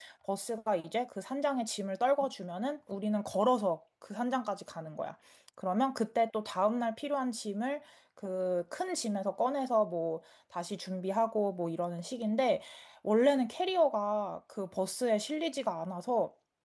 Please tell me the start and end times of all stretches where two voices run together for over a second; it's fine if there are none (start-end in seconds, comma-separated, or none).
none